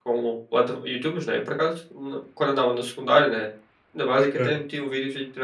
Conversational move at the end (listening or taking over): listening